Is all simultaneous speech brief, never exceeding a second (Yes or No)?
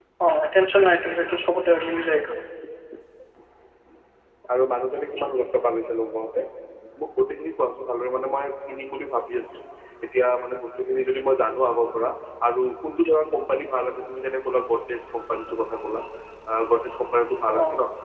Yes